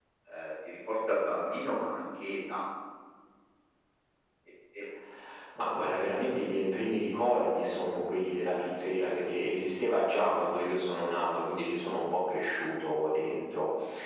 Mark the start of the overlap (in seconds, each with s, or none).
none